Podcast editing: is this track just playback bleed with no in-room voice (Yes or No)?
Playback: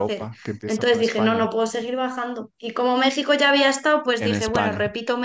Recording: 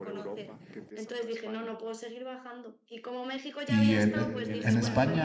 No